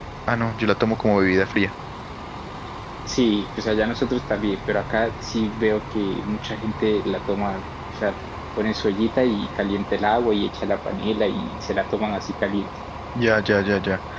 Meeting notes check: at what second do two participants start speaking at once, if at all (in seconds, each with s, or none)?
none